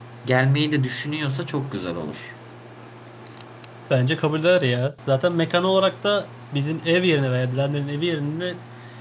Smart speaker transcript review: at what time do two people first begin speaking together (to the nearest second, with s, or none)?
none